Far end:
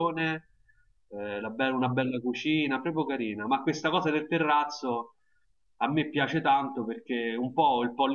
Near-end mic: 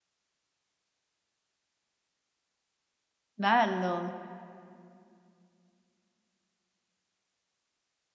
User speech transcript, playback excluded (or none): bello.